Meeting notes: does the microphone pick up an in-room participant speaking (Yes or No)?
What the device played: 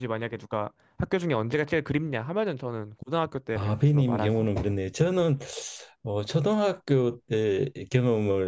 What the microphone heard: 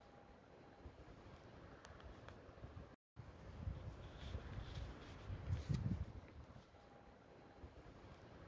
No